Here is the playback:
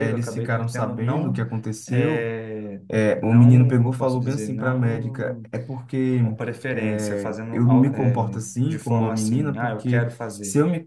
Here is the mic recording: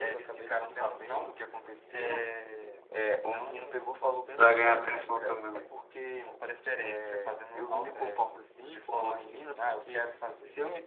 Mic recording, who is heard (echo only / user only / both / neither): both